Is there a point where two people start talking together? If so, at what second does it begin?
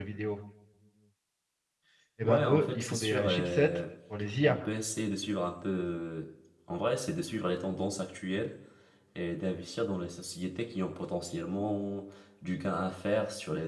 2.2 s

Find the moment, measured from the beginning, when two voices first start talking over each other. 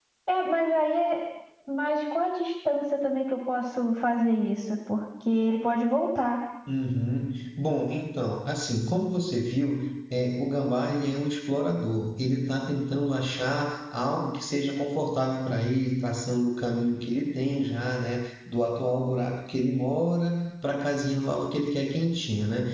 none

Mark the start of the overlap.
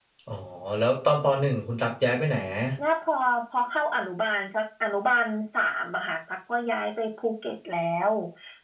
none

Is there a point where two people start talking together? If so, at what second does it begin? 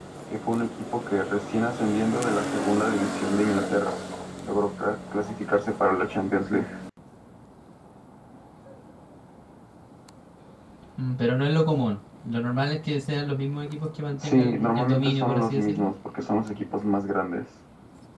14.1 s

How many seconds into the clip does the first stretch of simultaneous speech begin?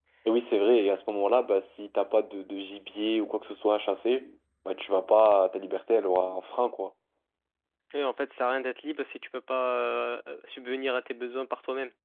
none

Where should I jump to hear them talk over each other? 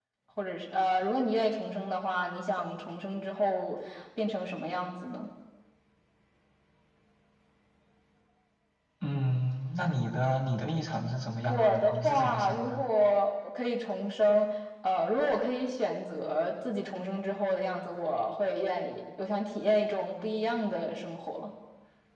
11.5 s

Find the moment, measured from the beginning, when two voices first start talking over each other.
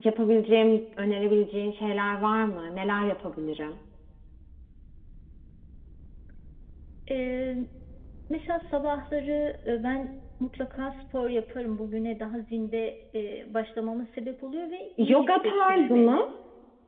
15.0 s

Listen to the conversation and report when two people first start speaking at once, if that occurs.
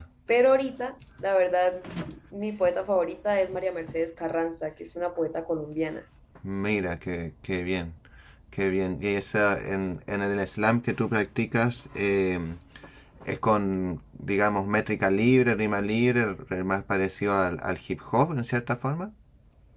none

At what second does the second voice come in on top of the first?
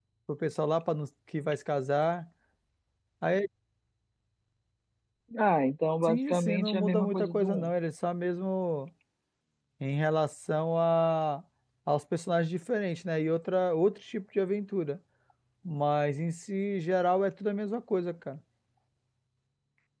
6.0 s

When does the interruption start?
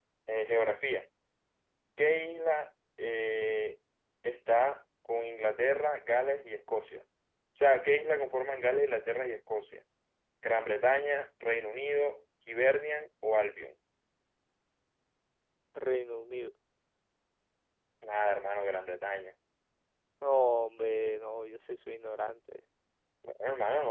none

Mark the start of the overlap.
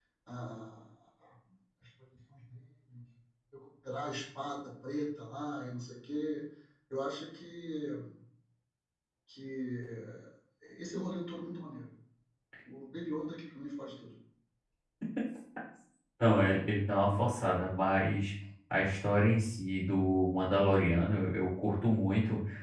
none

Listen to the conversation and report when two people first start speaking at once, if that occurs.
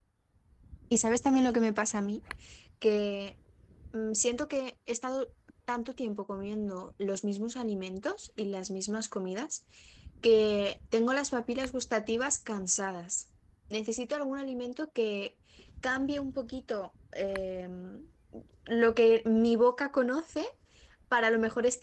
none

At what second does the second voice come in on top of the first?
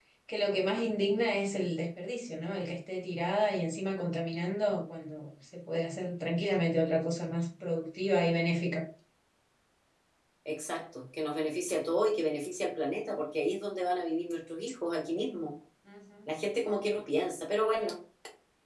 none

